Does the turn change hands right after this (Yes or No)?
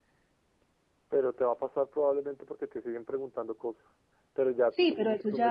Yes